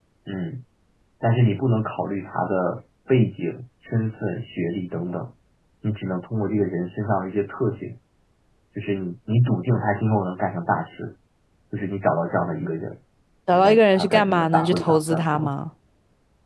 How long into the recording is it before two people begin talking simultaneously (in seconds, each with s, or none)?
13.5 s